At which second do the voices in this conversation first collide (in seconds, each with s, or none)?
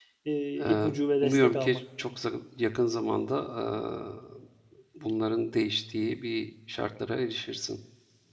0.6 s